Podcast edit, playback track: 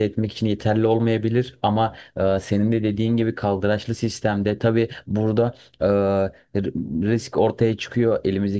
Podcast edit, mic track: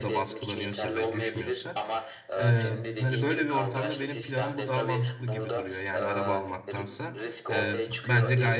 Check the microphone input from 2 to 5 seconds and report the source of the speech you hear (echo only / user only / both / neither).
both